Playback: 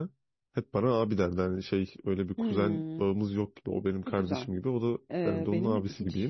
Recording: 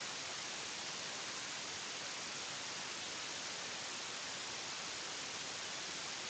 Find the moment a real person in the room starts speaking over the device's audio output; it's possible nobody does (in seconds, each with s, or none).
none